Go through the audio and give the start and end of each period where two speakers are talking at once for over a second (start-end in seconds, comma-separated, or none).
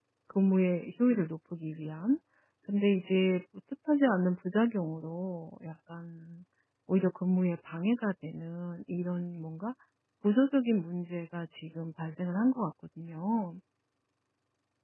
none